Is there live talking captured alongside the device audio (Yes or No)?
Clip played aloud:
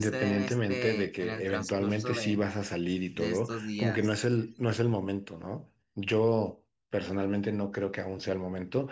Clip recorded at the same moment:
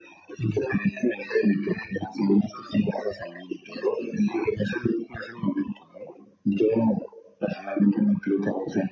No